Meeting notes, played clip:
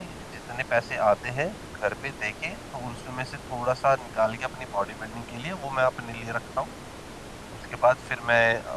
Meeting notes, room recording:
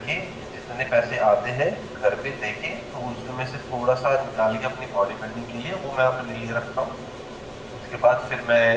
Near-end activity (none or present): none